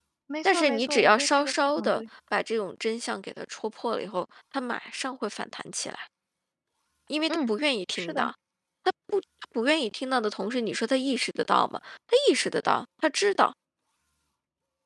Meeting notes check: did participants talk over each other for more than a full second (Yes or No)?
Yes